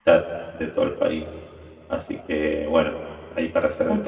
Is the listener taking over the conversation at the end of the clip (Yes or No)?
Yes